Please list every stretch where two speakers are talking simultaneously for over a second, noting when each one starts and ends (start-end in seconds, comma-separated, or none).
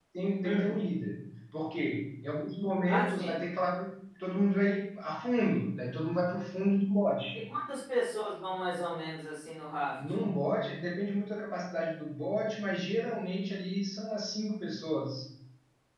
none